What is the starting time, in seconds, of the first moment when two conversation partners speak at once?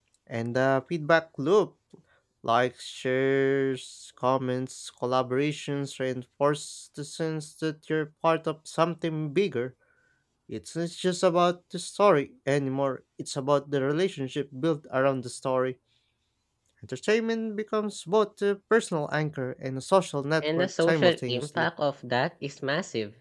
20.4 s

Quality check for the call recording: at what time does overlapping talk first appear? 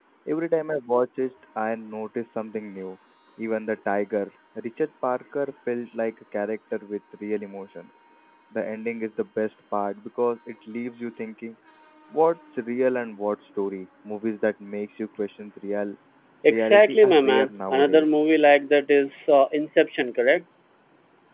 16.5 s

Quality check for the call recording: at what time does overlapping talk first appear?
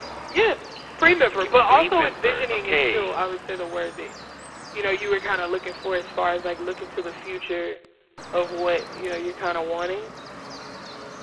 1.3 s

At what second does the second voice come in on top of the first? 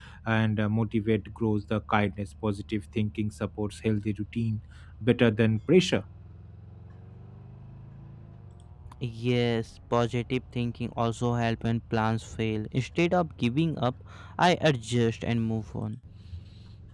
none

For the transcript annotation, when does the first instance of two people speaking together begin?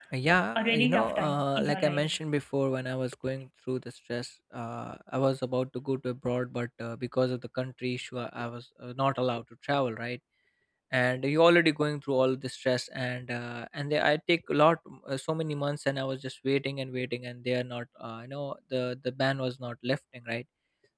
0.6 s

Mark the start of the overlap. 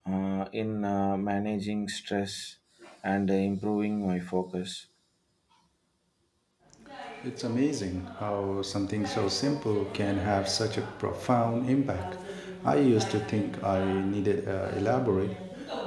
none

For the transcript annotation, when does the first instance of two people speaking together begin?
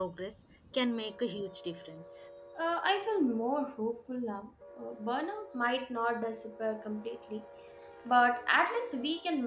none

